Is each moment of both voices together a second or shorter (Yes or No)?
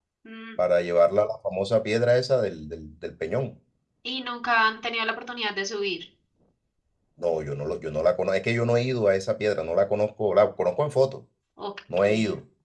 Yes